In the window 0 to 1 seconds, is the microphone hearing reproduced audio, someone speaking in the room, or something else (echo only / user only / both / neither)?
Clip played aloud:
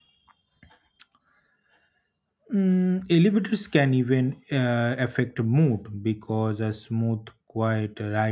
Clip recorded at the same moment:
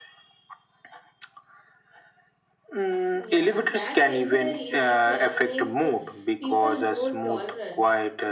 neither